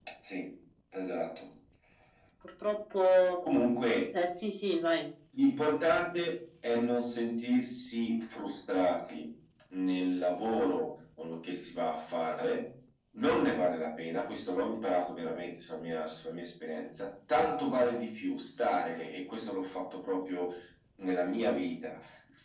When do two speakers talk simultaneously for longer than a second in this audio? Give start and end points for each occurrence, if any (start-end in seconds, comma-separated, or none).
none